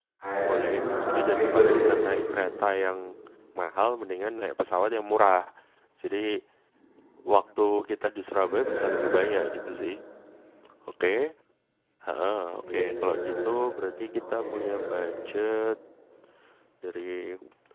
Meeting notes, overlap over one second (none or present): present